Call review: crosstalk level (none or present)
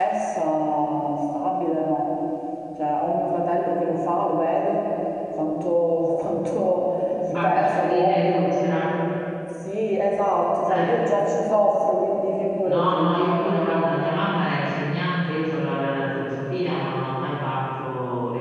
present